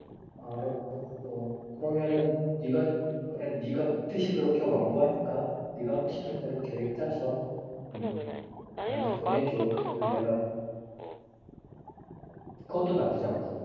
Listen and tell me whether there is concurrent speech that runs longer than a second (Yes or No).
Yes